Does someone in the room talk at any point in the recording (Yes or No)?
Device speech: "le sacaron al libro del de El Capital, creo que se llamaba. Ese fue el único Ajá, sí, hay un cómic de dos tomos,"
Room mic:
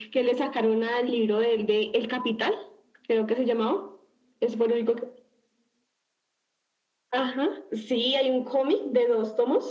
No